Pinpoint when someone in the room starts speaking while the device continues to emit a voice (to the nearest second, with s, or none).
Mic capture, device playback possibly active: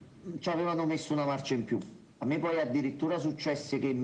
none